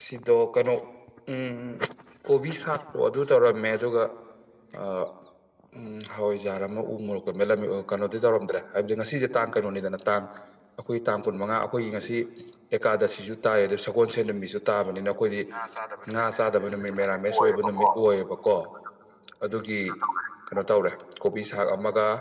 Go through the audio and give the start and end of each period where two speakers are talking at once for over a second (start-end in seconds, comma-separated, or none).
16.3-17.9